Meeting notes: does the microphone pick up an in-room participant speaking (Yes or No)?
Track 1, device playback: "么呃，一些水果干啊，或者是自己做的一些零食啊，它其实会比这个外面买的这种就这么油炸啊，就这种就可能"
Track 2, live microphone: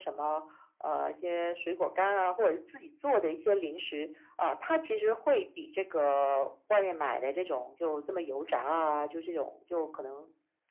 No